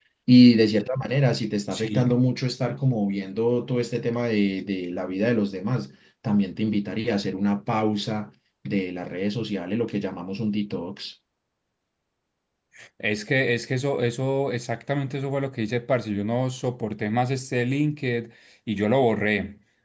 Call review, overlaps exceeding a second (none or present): none